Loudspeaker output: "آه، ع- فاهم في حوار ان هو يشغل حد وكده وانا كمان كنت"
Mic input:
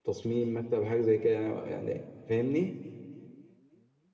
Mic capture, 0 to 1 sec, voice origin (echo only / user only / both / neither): user only